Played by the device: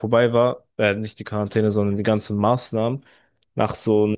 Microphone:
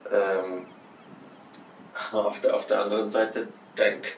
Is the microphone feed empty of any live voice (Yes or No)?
No